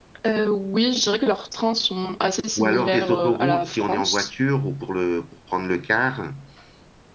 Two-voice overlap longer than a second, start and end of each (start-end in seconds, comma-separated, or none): 2.6-4.3